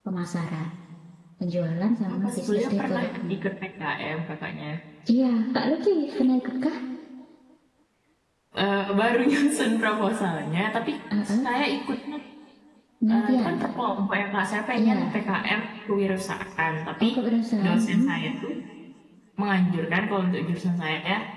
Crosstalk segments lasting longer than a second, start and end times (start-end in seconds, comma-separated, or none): 2.1-3.3